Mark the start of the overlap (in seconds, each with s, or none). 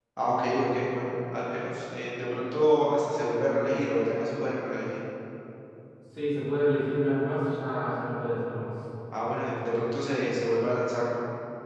none